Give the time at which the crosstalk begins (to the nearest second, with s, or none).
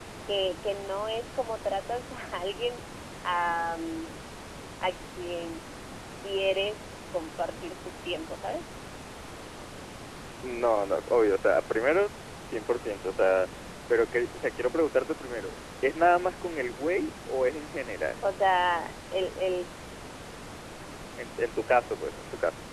none